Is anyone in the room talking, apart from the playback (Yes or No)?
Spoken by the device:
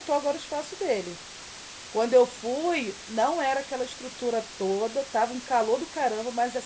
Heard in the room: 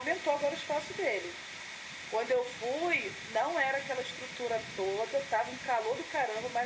No